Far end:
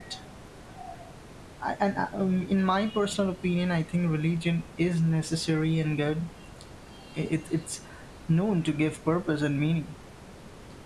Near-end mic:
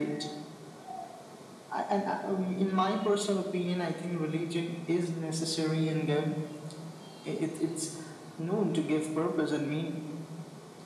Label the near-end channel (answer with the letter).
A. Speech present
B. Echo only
B